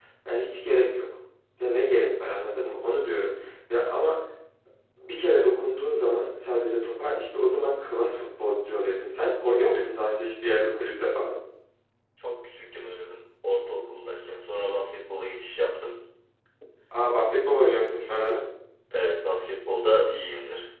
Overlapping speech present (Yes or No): No